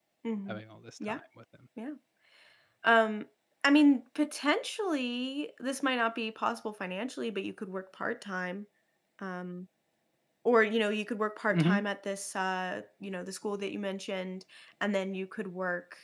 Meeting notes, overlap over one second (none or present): none